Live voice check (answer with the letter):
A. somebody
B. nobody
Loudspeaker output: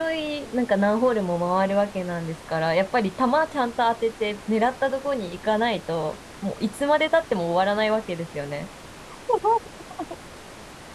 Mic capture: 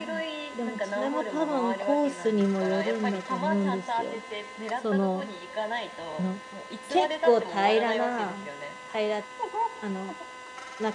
A